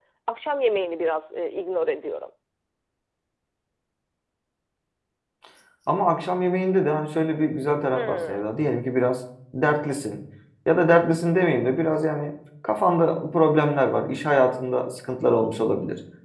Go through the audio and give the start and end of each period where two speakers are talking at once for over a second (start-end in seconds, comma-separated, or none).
none